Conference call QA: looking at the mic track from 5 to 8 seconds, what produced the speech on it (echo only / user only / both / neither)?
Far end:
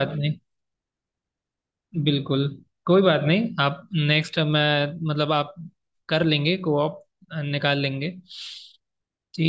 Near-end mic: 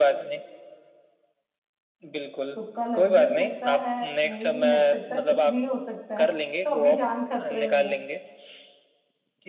both